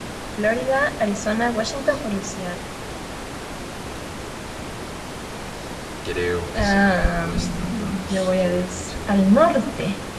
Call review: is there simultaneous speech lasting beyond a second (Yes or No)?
Yes